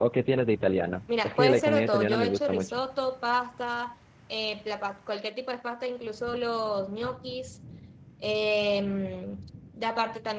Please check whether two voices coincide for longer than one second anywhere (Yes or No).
Yes